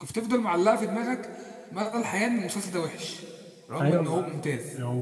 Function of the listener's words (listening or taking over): taking over